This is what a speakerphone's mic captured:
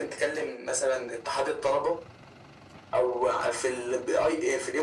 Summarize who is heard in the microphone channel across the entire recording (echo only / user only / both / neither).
echo only